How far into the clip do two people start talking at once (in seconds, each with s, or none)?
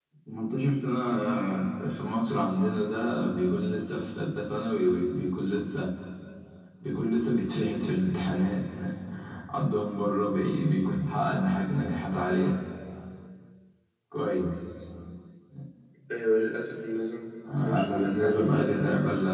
17.4 s